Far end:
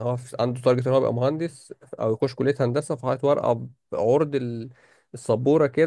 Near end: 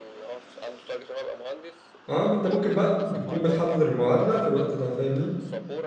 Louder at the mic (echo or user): user